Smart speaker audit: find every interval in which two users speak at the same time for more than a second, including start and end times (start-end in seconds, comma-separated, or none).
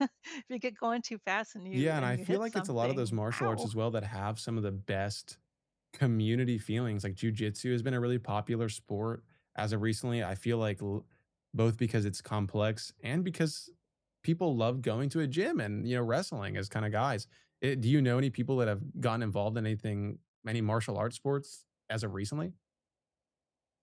1.7-3.7